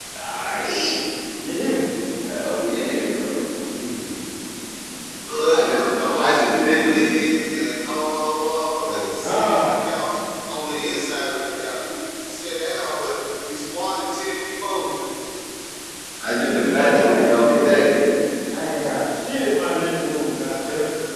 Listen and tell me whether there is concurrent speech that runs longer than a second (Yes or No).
Yes